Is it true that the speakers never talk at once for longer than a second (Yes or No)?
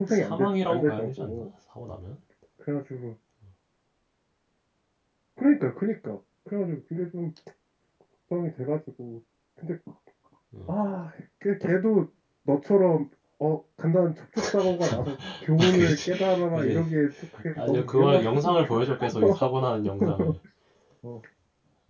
No